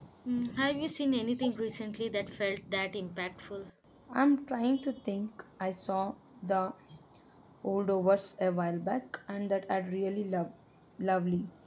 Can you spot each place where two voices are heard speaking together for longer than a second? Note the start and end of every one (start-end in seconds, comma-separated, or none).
none